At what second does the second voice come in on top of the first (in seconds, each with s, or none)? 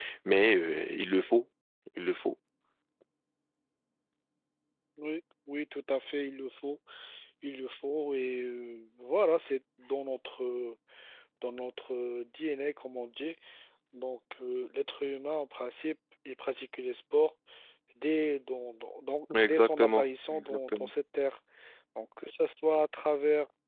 19.3 s